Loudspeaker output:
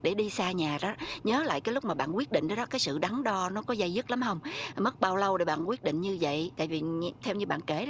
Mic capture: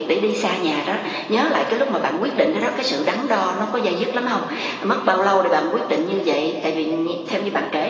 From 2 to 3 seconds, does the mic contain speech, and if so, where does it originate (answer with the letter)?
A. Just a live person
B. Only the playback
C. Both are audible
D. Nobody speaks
B